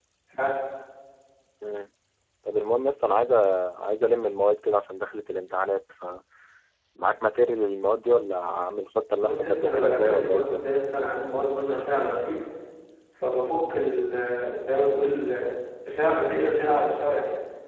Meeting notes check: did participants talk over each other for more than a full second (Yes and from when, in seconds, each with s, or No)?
Yes, from 9.2 s